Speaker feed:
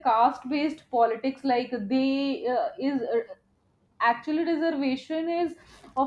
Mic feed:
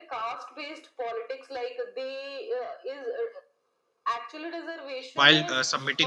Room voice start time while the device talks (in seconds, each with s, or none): 5.1 s